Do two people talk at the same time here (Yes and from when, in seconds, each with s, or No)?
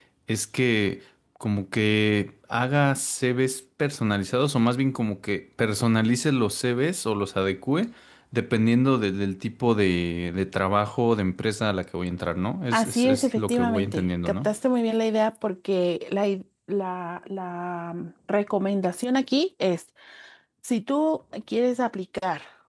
Yes, from 12.7 s